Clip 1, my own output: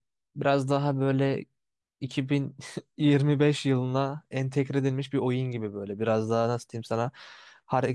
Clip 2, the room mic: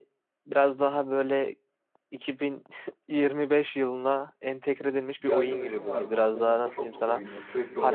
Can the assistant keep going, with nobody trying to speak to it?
No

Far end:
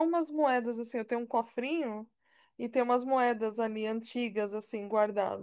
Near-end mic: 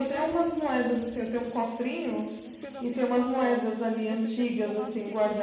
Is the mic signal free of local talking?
No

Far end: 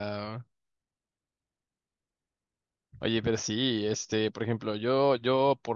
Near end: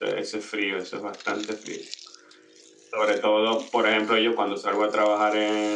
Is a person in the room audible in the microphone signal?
Yes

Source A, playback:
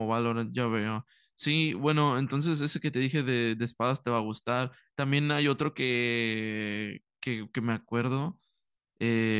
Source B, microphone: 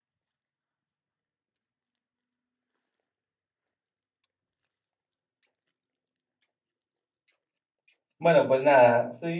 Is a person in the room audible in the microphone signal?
Yes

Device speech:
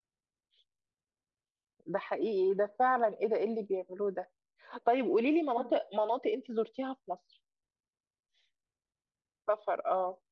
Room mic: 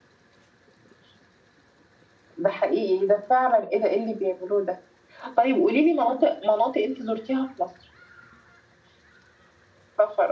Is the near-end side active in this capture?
No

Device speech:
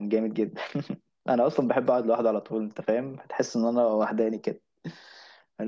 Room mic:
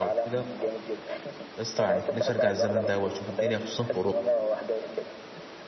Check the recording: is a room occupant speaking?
Yes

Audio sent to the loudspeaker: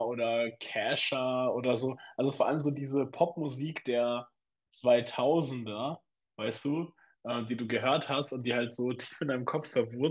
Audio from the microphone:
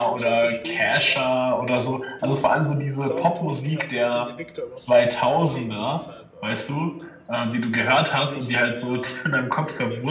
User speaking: Yes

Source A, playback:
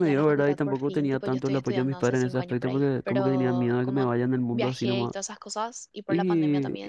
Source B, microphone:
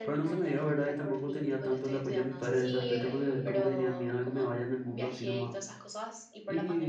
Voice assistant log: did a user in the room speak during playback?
Yes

